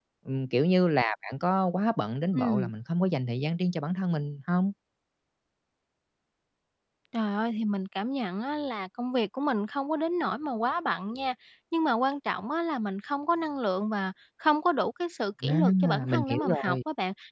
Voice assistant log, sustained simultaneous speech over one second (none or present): present